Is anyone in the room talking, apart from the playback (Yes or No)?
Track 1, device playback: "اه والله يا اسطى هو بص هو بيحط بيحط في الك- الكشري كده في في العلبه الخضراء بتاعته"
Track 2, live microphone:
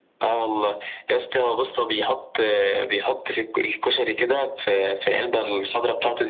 No